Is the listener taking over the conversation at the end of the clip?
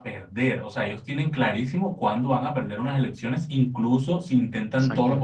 No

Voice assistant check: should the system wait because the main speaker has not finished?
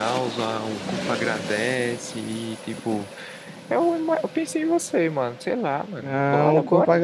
No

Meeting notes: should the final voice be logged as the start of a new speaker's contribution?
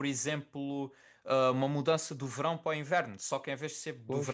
No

